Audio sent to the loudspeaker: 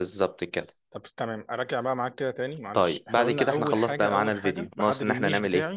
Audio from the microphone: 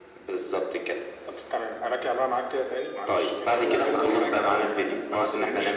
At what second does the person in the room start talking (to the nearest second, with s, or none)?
none